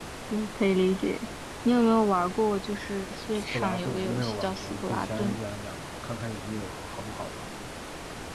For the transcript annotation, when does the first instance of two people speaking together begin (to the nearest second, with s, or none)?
3 s